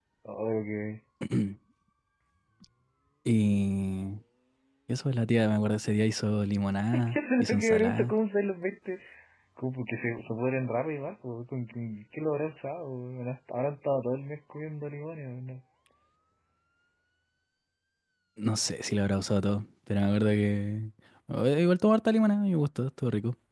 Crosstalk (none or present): present